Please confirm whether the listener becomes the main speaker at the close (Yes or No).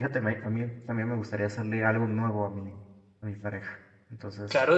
Yes